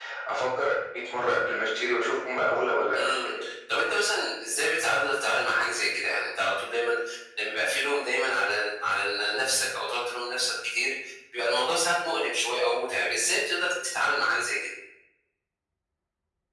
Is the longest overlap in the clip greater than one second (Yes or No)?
No